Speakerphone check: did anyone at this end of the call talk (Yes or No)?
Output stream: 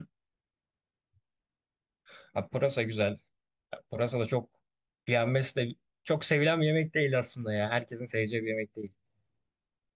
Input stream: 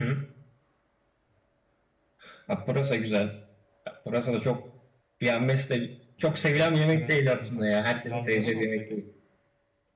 Yes